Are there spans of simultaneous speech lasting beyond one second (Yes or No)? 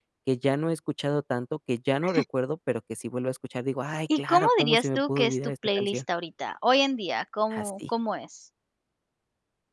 Yes